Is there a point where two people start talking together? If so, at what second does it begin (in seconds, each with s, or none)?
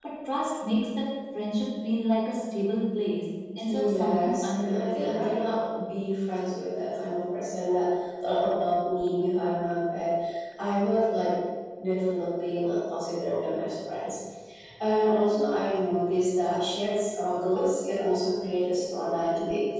3.7 s